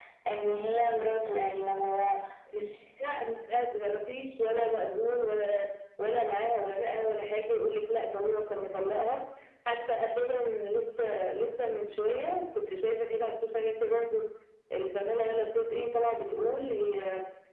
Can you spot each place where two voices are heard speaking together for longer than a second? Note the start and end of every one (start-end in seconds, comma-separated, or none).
none